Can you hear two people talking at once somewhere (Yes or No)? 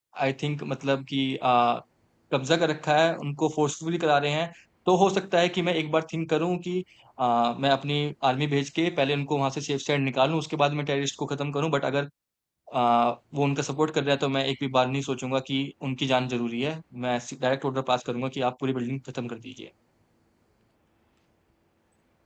No